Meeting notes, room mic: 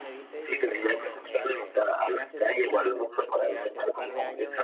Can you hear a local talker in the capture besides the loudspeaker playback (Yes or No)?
Yes